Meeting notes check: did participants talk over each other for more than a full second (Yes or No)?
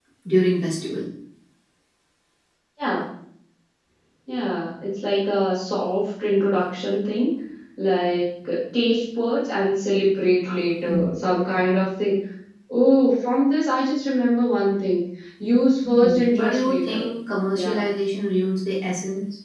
Yes